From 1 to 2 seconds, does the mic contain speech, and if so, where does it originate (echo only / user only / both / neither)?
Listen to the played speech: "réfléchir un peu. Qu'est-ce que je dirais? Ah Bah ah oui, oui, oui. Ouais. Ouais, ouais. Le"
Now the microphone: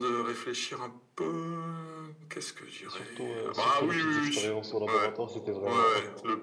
echo only